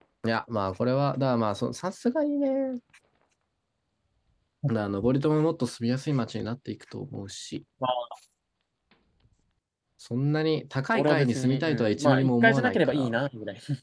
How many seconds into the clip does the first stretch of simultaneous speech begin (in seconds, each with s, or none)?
10.9 s